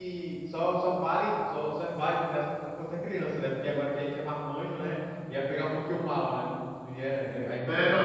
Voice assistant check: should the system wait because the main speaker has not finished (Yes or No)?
No